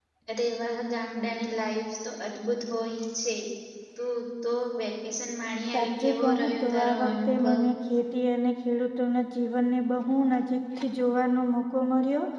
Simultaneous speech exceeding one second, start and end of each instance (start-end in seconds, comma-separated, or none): 5.7-7.5